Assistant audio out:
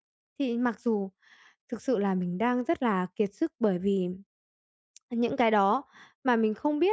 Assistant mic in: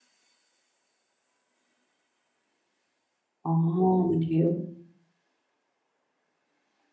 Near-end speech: present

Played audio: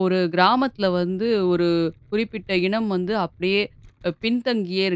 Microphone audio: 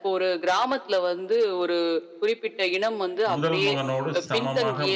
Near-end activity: present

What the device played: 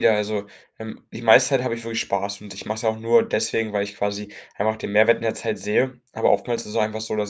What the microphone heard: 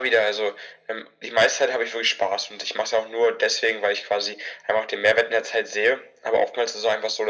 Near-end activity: none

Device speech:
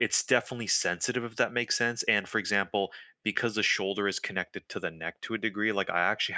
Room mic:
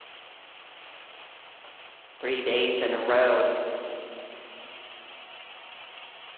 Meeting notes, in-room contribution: present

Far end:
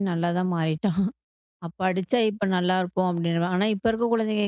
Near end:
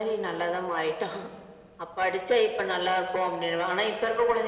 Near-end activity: none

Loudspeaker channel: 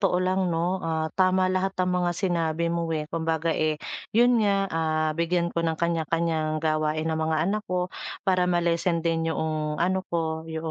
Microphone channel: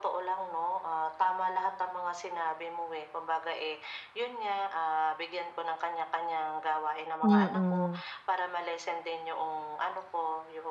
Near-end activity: present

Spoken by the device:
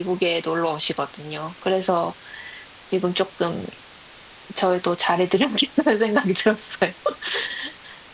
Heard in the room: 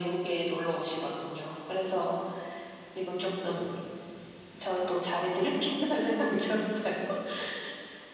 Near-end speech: none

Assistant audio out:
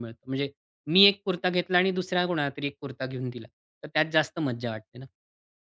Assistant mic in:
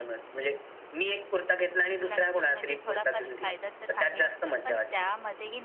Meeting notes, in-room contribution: present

